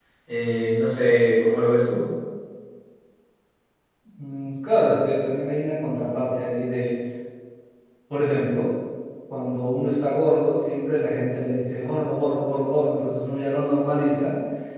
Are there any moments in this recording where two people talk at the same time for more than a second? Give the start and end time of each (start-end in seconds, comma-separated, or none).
none